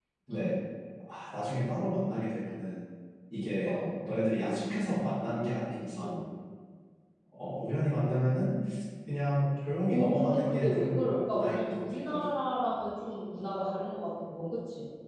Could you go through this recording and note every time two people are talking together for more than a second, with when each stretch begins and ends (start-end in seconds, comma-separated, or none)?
9.9-12.3